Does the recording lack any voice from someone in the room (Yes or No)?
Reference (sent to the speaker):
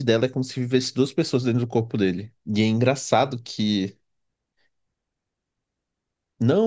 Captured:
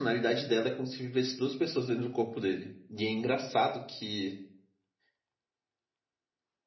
Yes